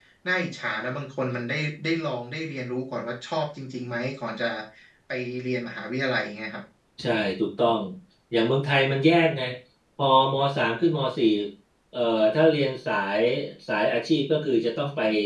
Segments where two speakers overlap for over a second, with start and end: none

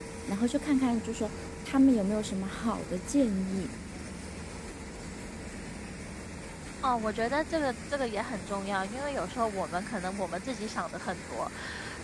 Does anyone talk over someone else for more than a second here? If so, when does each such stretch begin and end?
none

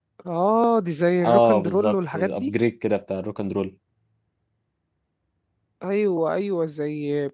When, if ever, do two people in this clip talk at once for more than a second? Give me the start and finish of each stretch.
1.2-2.5

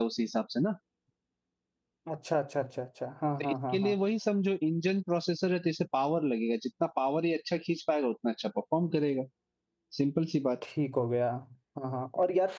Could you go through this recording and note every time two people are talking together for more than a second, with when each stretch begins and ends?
none

